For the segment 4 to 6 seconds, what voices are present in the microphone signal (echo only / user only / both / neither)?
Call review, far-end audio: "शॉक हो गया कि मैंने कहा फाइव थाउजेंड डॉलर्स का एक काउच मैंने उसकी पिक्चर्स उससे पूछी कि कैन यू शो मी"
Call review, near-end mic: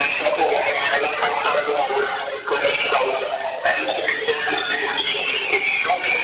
echo only